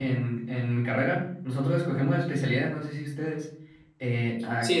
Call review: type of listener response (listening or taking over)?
listening